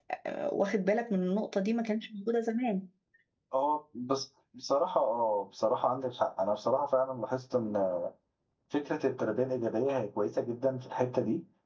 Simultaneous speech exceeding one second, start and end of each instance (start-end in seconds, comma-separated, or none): none